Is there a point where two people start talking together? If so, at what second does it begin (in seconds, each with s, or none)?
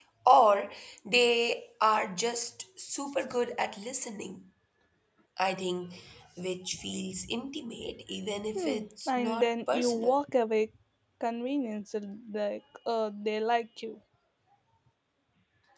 8.5 s